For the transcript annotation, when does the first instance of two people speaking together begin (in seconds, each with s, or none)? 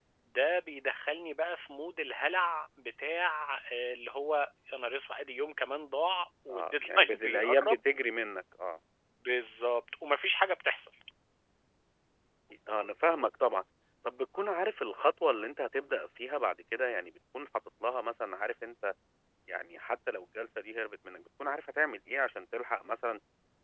6.5 s